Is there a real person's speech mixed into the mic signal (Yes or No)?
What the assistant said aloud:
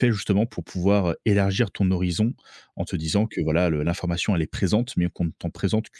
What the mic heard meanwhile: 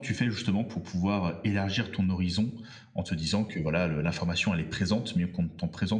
No